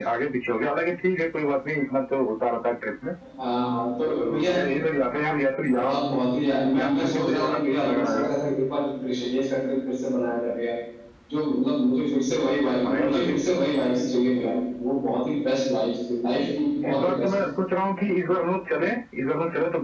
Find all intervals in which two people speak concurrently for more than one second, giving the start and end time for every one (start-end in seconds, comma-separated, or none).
6.8-8.3